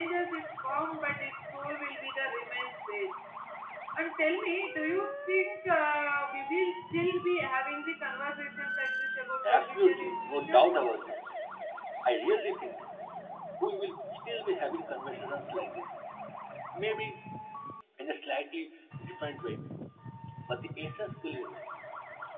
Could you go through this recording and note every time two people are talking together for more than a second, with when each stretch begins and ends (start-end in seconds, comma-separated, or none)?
9.4-10.7